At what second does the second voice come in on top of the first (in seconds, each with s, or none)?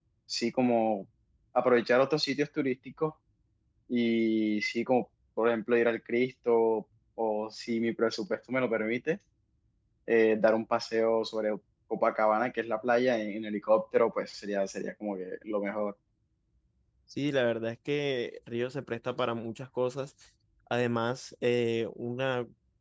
none